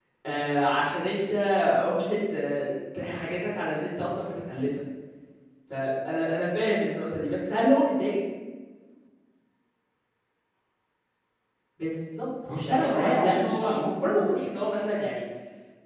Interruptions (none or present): present